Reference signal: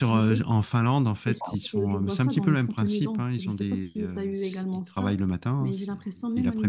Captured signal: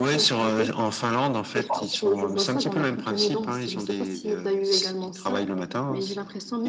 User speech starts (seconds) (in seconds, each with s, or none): none